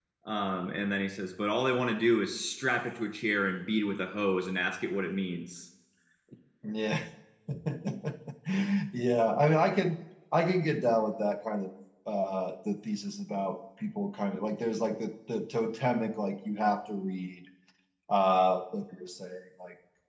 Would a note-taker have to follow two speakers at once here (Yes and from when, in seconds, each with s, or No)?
No